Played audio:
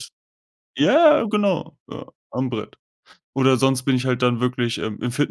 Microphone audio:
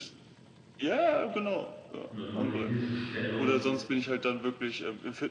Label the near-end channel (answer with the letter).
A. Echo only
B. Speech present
B